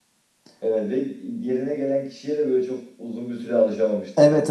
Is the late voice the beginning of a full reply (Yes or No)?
Yes